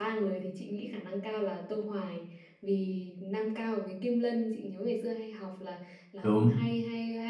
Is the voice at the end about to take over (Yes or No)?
No